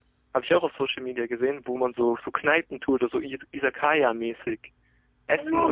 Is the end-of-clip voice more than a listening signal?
Yes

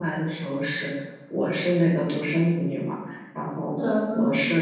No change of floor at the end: Yes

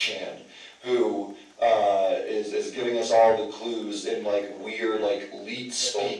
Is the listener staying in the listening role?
Yes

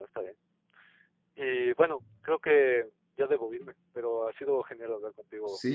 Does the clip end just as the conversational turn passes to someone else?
Yes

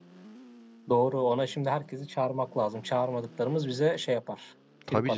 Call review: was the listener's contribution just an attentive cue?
No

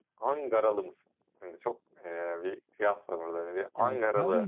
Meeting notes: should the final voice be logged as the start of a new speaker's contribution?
Yes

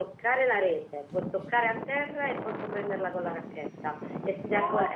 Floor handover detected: Yes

